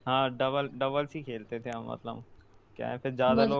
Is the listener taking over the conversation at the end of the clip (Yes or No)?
No